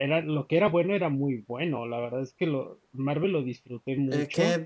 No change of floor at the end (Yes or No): No